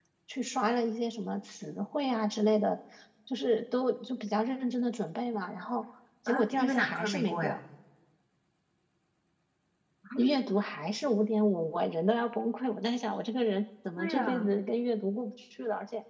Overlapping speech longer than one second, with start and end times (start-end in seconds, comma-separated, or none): 6.3-7.6